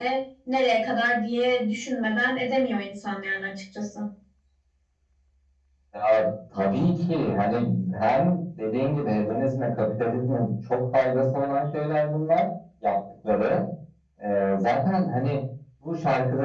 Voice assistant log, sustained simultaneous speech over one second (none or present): none